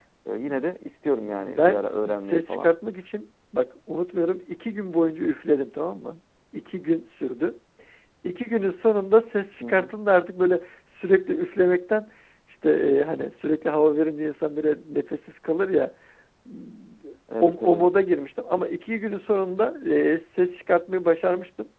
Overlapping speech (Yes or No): Yes